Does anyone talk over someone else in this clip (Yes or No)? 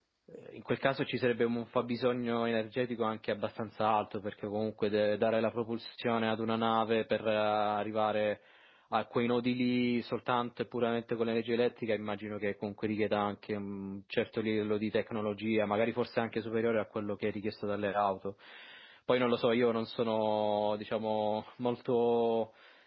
No